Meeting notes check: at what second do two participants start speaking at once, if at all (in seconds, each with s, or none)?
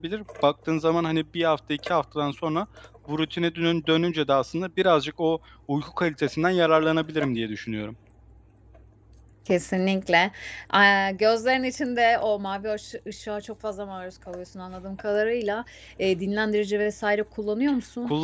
none